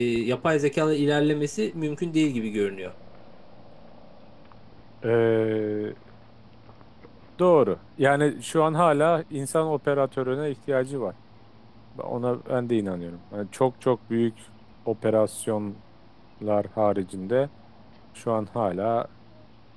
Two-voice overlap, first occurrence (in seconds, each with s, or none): none